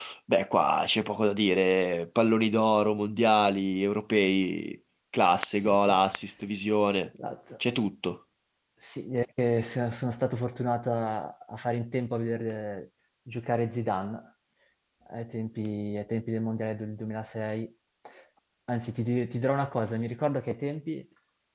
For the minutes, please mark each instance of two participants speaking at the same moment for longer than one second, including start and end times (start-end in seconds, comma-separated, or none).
none